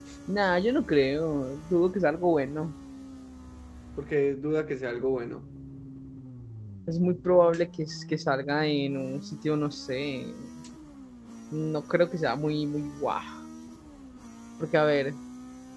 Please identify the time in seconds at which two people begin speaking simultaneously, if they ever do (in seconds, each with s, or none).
none